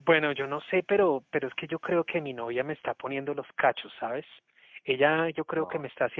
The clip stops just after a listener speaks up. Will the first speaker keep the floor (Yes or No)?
Yes